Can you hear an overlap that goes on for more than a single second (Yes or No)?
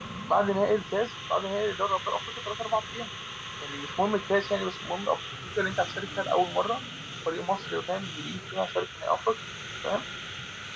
No